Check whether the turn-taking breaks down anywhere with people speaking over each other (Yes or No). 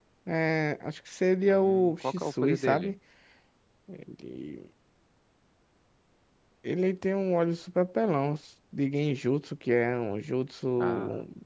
Yes